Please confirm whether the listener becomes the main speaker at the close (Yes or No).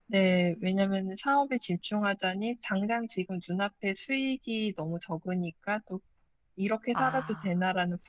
No